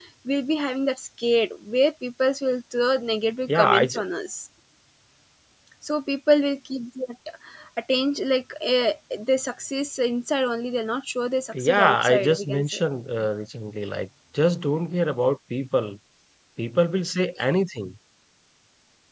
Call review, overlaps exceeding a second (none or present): present